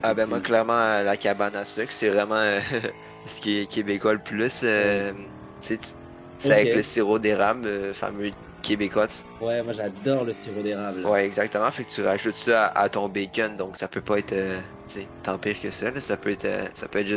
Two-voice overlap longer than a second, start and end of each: none

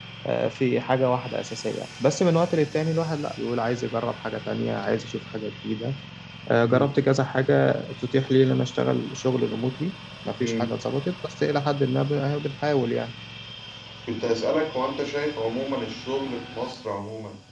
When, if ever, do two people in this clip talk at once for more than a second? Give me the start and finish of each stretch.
none

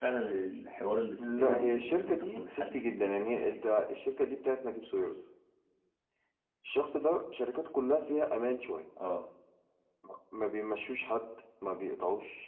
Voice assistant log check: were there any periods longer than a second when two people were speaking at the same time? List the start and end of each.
1.2-3.6

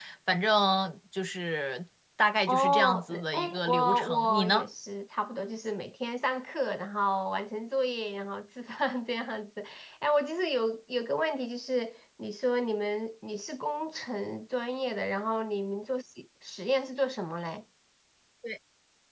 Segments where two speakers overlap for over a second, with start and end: 2.5-4.7

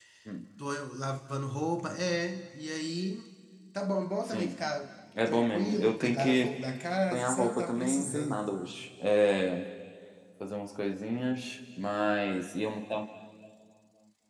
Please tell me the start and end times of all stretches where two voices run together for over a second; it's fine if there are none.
5.2-6.5, 7.1-8.4

